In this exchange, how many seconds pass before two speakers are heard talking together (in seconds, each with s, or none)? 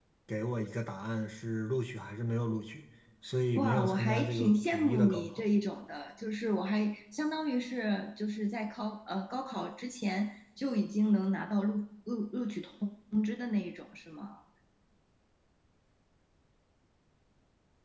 3.6 s